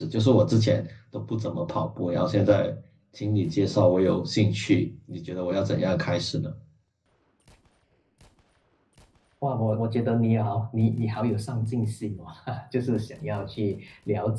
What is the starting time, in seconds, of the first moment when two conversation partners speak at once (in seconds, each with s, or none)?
none